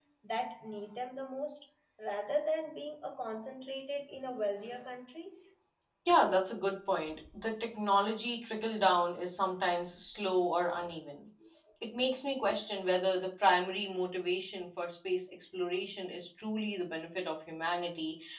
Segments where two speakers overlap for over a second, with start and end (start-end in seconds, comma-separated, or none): none